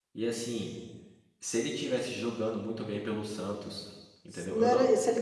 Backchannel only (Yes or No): No